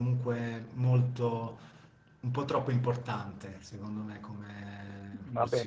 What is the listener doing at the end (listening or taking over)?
taking over